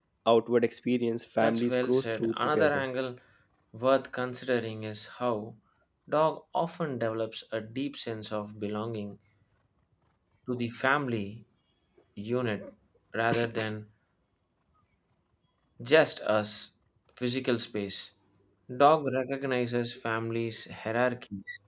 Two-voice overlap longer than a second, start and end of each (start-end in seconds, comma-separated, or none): 1.4-2.8